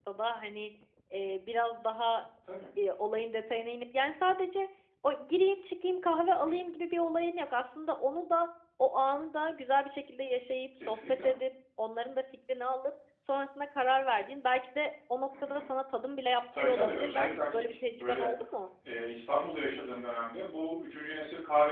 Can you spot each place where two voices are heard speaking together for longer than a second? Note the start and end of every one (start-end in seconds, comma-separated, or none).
16.6-18.3